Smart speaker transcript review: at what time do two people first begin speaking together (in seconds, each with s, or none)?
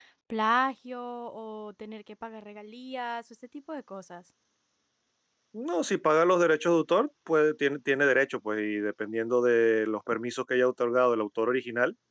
none